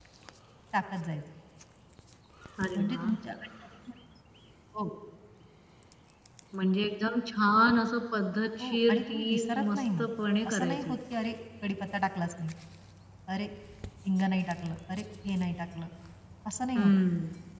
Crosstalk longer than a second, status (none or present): present